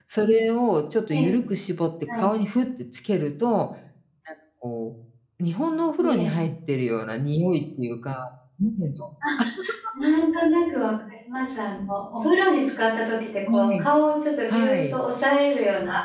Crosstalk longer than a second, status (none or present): none